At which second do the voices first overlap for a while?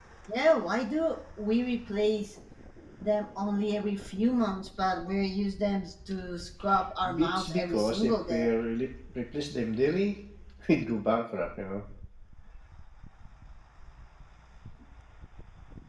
7.0 s

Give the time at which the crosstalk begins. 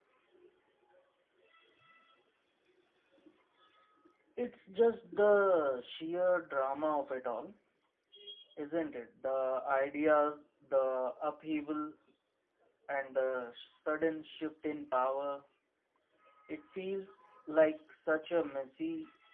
none

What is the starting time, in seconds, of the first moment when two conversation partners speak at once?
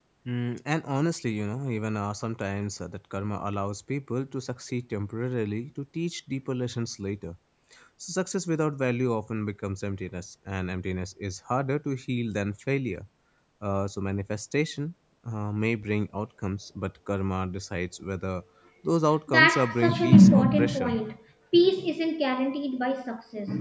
19.3 s

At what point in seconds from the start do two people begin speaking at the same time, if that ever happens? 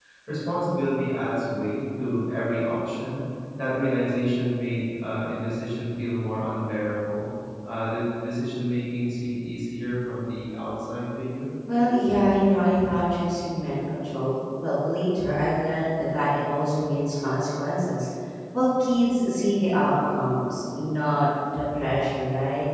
none

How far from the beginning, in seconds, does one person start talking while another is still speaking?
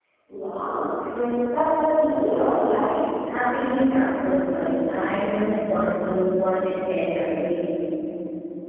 none

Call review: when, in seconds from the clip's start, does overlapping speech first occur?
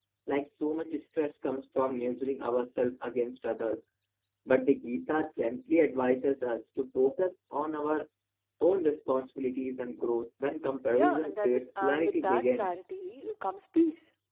10.9 s

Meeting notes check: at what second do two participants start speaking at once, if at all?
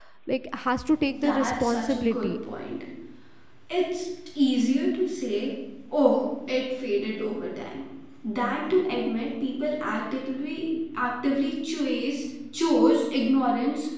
1.1 s

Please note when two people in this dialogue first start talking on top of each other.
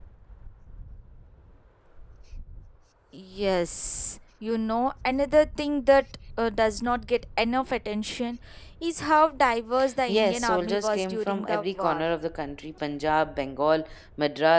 10.1 s

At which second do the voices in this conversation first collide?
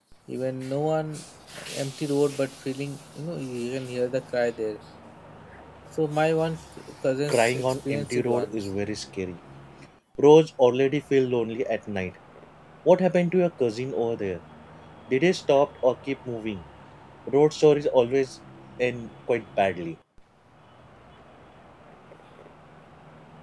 7.3 s

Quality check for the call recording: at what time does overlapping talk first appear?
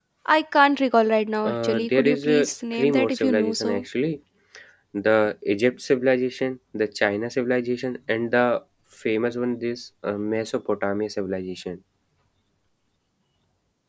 1.4 s

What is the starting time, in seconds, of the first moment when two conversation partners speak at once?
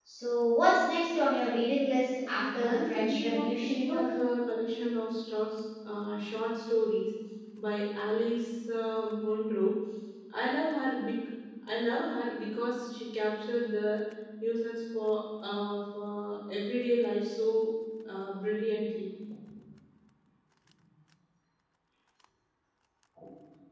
2.6 s

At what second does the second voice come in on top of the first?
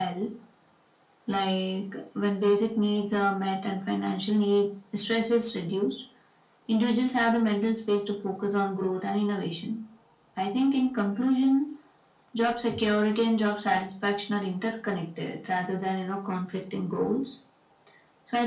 none

